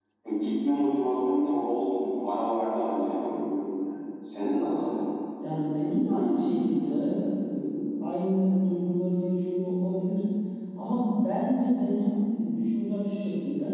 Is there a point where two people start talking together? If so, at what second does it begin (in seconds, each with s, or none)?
none